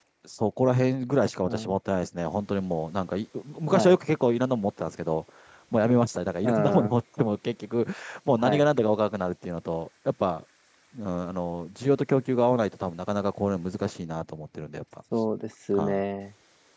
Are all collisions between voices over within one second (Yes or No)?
Yes